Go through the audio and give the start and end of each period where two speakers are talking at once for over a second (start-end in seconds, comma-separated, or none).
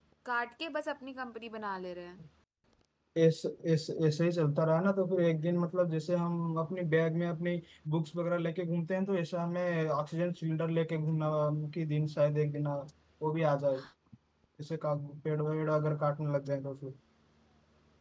none